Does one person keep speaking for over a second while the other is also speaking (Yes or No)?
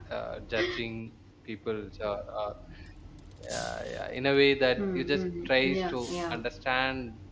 Yes